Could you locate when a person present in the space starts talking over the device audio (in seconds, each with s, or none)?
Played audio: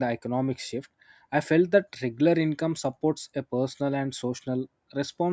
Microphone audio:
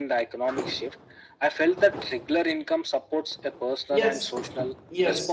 3.9 s